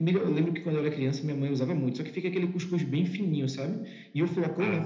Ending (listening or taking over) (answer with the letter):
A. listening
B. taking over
A